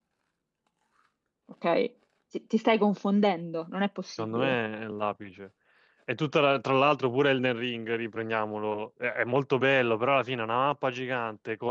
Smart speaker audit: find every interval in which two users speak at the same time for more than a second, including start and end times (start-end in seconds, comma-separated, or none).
none